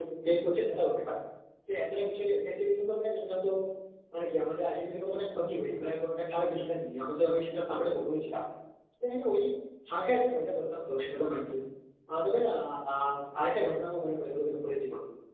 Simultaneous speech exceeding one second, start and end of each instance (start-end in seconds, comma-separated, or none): none